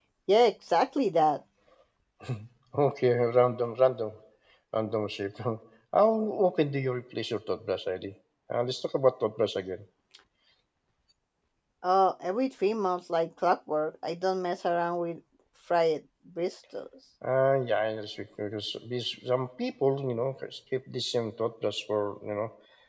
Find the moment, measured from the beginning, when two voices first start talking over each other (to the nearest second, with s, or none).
none